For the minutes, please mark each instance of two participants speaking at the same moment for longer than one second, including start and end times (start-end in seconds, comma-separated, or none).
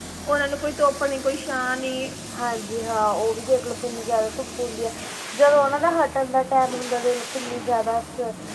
none